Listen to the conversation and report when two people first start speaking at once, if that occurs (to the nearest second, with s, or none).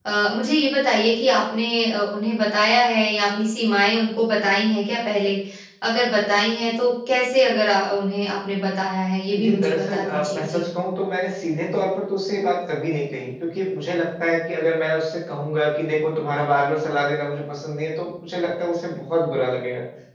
9 s